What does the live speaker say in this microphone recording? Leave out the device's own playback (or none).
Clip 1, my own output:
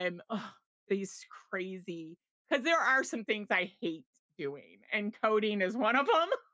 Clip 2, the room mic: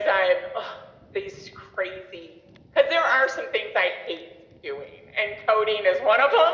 none